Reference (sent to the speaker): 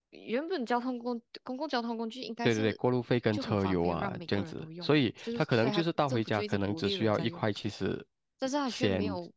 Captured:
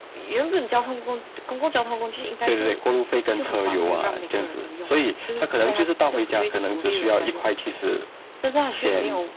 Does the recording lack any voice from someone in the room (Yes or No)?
Yes